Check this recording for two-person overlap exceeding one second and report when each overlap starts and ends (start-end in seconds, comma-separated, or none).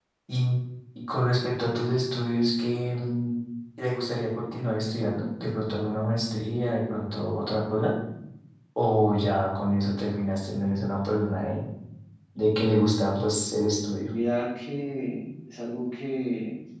none